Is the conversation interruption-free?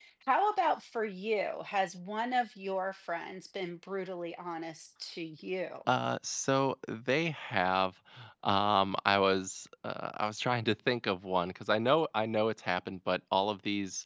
Yes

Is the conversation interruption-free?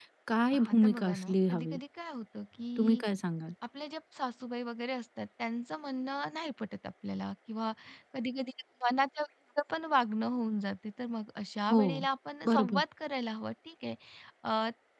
No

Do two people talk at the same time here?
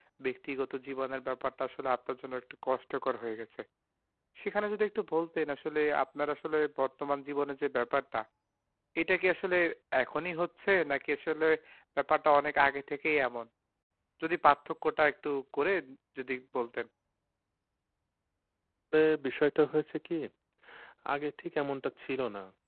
No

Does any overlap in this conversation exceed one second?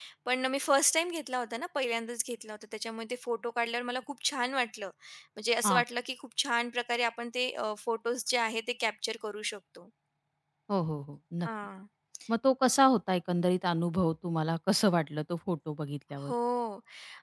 No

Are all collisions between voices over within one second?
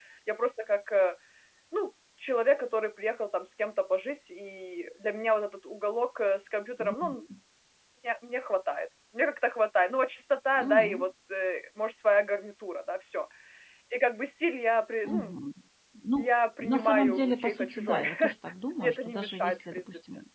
No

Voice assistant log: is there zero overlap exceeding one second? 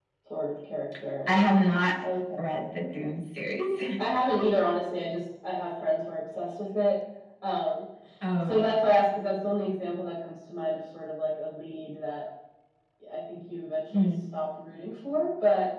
Yes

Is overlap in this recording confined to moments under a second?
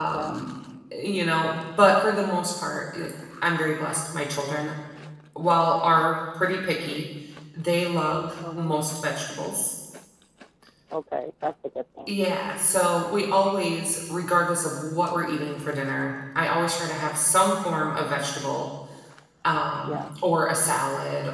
Yes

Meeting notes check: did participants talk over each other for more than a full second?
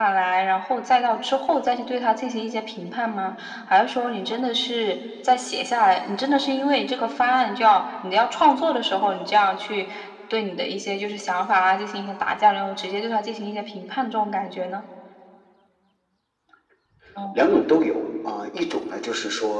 No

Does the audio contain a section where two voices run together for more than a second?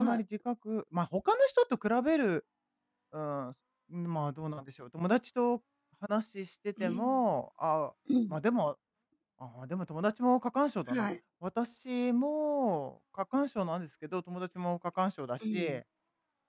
No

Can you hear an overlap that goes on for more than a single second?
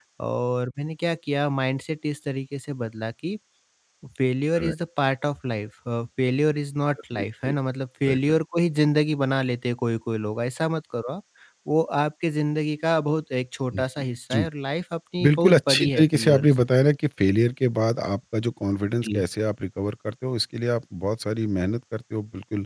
Yes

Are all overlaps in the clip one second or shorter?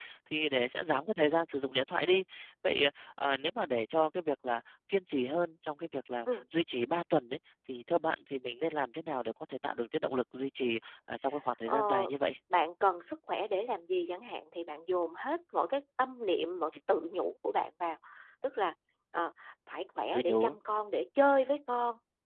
Yes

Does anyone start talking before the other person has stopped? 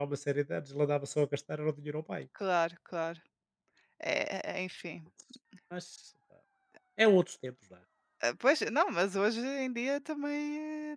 No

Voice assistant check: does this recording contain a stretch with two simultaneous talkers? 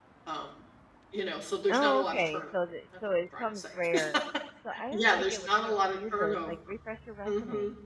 Yes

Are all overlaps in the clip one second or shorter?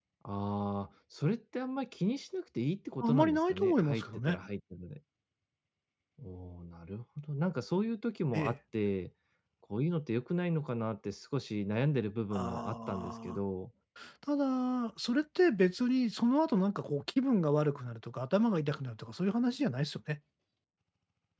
No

